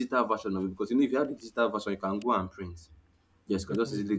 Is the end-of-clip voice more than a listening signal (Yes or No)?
No